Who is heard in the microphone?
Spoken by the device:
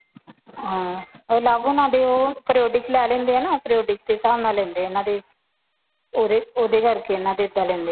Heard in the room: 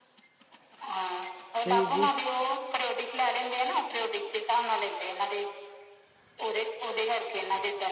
both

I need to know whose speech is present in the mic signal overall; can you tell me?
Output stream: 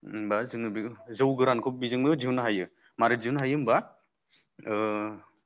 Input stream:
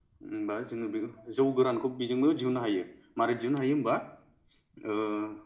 echo only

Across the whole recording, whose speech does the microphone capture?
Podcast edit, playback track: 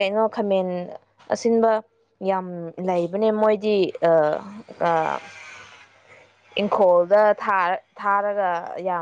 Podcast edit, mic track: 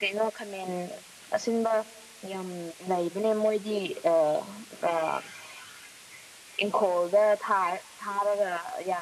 echo only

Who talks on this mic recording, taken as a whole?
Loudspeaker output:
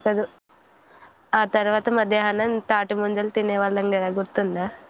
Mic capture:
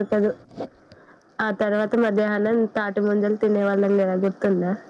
echo only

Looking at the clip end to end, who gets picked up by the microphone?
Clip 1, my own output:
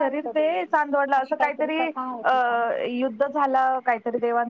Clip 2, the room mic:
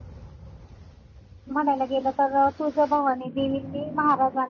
user only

